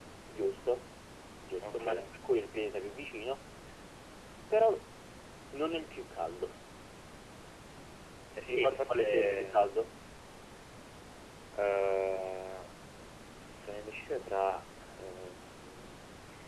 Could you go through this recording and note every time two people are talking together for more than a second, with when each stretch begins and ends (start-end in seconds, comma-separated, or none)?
8.5-9.7